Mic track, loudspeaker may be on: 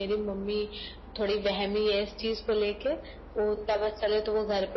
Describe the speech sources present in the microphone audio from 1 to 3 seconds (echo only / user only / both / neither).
echo only